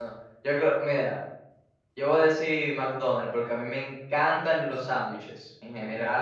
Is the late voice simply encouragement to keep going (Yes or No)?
Yes